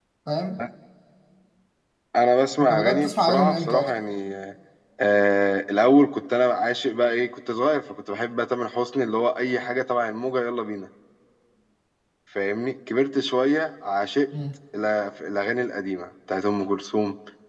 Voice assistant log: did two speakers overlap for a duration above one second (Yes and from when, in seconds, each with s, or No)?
Yes, from 2.6 s